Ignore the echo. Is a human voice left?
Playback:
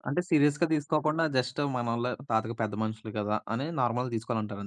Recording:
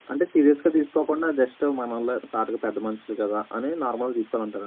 No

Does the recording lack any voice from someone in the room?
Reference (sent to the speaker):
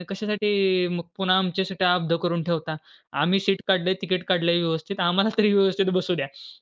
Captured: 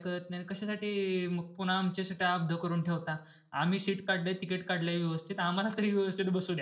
Yes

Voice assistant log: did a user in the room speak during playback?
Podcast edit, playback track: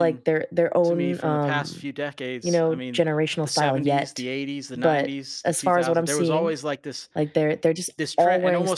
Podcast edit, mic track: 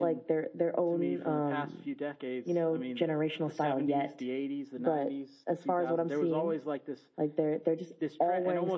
No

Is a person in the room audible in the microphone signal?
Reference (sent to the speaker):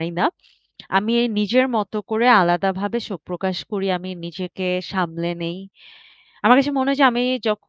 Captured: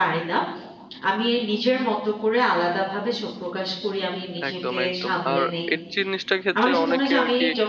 Yes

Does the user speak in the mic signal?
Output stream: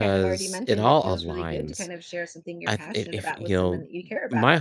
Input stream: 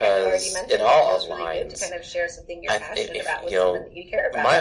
No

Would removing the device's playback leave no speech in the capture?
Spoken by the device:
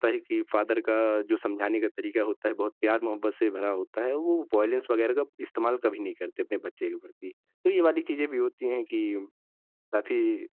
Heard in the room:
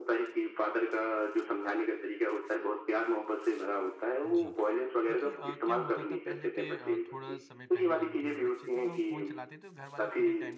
No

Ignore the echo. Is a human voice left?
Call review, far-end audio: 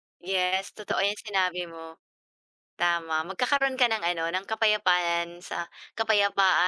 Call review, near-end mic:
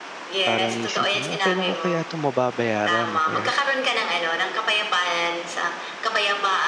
Yes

